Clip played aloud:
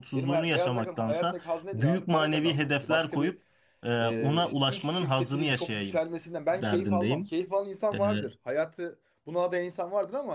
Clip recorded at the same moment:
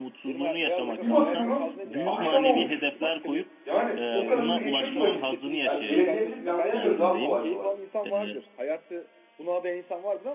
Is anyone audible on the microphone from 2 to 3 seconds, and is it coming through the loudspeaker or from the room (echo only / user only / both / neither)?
both